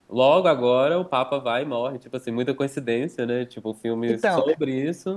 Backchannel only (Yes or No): Yes